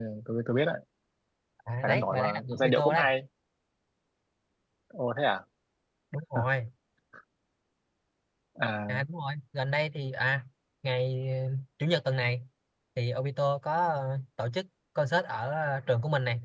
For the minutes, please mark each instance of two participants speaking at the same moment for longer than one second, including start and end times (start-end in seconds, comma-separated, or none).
1.8-3.1